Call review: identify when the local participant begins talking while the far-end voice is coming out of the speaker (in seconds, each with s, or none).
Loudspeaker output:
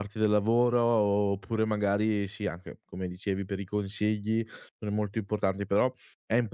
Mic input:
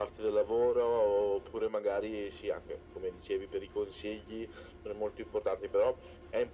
none